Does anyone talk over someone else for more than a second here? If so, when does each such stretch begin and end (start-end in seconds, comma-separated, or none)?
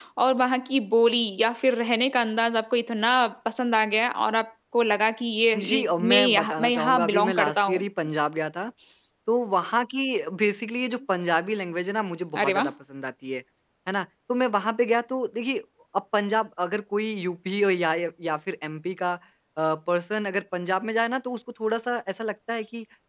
5.7-7.8